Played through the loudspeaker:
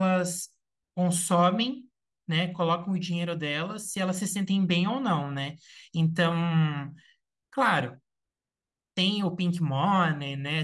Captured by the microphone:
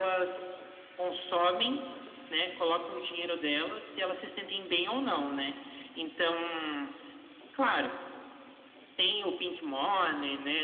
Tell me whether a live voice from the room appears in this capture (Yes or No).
No